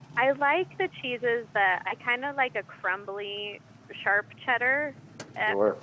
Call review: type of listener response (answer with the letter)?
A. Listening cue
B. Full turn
A